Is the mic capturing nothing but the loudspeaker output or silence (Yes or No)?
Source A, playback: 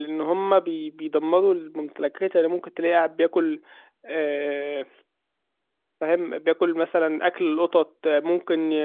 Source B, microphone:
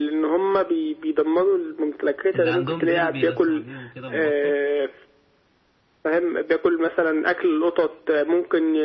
No